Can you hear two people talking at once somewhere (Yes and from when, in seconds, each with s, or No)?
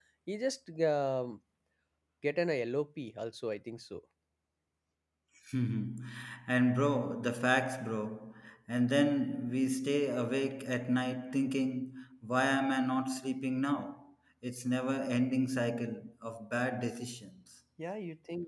No